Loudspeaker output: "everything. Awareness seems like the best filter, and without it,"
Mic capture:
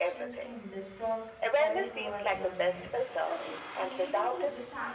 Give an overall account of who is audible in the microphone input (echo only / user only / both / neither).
both